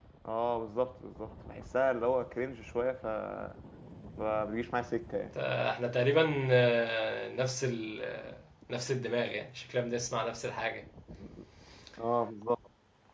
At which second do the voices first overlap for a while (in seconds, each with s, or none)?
none